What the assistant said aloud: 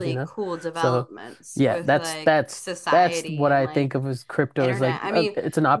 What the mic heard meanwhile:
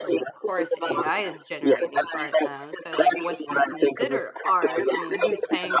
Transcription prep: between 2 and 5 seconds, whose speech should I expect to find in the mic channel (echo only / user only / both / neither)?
both